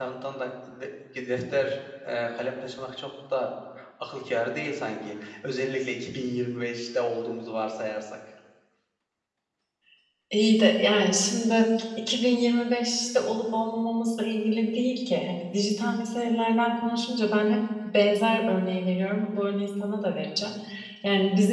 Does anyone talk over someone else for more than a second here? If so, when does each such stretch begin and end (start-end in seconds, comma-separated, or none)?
none